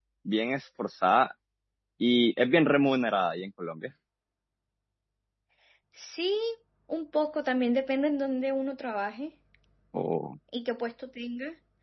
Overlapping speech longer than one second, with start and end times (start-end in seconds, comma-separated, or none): none